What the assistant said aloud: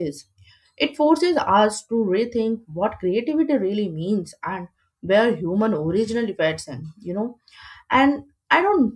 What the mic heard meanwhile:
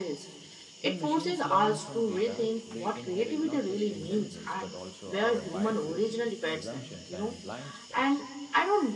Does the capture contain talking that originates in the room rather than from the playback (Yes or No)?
Yes